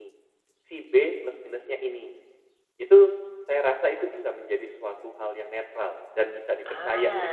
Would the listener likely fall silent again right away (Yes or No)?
No